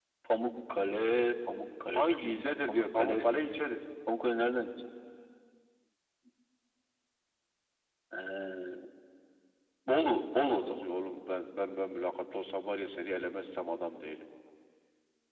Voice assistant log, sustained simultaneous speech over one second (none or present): present